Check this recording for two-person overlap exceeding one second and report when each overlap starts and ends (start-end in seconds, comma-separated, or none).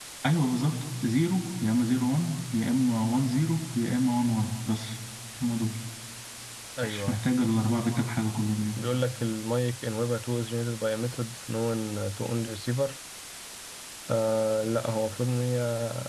none